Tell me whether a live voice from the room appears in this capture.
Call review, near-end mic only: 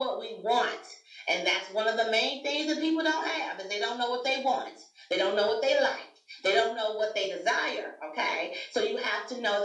No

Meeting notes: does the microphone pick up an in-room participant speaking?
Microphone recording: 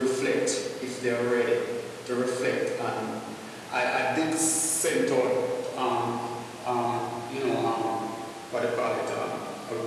No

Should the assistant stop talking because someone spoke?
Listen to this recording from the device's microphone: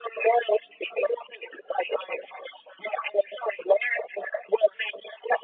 No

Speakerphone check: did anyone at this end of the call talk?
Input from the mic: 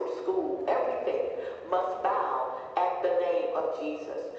No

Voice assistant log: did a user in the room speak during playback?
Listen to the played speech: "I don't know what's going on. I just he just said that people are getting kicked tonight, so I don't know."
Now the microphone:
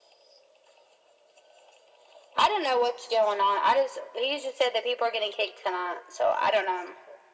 No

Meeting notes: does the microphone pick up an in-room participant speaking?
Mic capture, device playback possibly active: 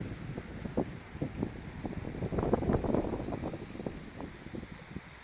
No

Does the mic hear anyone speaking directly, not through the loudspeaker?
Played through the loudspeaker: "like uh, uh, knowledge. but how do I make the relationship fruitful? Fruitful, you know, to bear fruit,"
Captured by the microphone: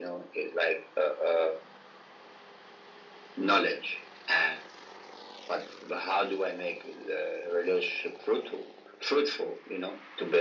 No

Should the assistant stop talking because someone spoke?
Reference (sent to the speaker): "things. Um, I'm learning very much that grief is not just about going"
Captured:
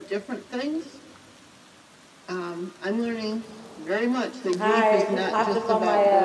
Yes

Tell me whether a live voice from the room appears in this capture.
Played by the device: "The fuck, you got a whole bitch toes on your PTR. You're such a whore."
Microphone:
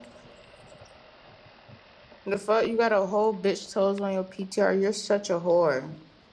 No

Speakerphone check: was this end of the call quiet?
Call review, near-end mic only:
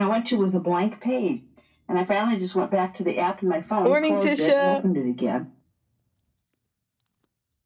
No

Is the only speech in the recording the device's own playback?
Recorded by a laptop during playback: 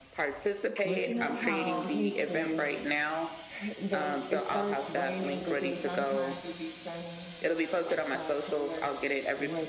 No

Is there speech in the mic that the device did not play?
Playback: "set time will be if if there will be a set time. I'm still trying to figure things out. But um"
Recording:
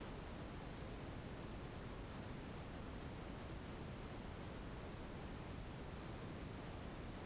No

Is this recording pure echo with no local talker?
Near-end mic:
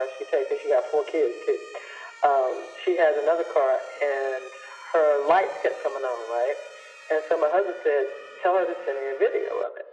Yes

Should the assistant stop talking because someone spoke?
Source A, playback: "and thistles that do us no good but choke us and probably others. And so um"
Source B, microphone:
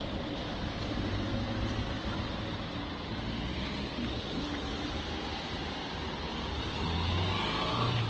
No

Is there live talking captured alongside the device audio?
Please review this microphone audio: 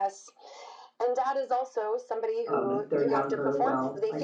Yes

